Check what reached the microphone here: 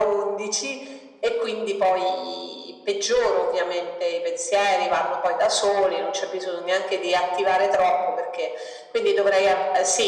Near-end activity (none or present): none